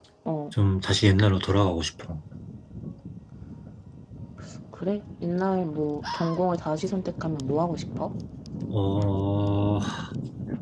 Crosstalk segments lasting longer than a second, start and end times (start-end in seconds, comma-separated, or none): none